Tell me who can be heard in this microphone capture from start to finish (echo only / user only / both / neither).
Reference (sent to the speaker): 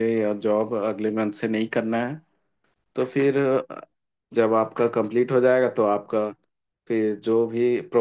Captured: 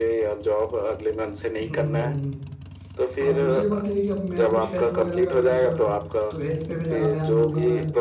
both